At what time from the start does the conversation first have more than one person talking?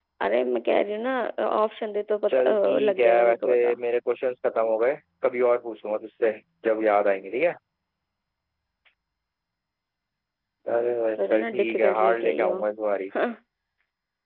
2.3 s

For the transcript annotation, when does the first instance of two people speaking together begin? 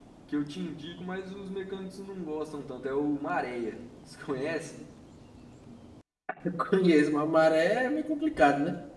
none

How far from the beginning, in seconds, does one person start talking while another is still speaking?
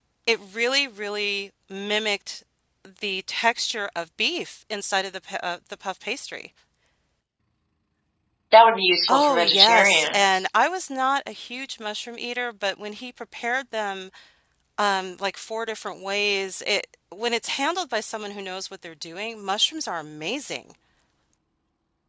9.1 s

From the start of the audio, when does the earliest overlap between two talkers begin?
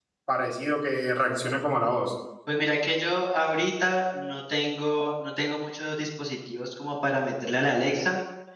none

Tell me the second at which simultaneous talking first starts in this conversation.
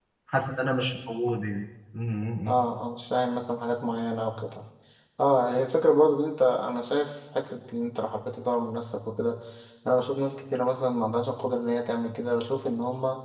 none

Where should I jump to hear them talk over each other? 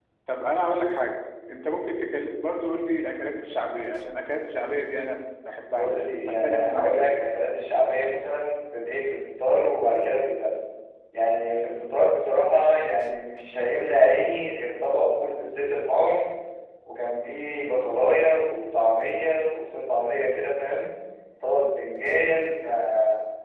5.8 s

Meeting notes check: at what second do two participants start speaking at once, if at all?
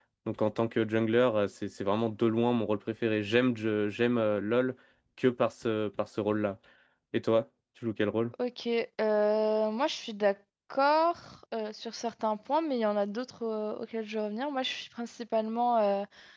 none

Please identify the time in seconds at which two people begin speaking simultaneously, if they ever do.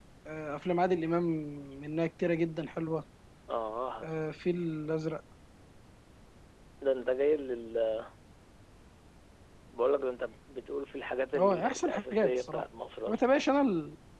11.3 s

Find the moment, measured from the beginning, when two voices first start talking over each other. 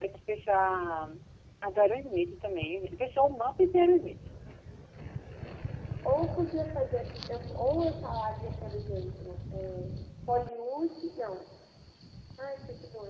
none

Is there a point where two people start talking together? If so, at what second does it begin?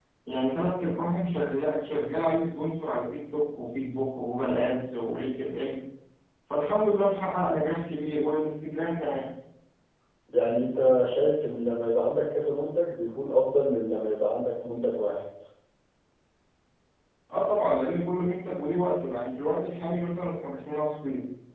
none

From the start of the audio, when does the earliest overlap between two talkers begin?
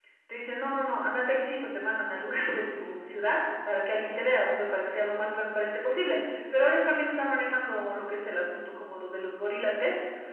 none

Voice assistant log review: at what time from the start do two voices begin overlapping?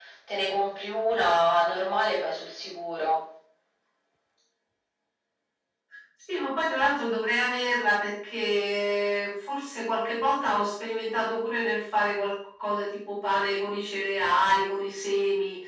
none

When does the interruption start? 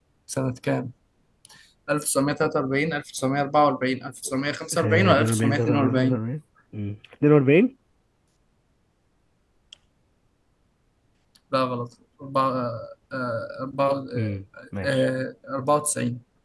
4.8 s

